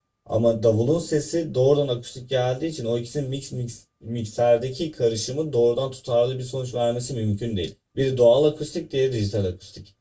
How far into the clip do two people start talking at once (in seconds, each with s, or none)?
none